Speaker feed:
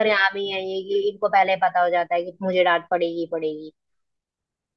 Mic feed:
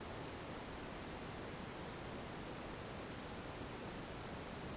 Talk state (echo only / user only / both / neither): neither